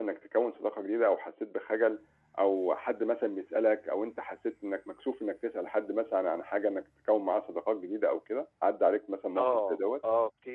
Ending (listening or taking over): taking over